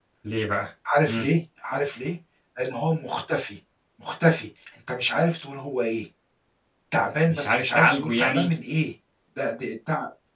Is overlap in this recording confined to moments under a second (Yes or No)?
No